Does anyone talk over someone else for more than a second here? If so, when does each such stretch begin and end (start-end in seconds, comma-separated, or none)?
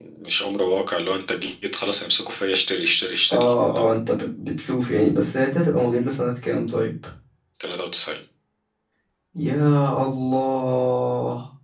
none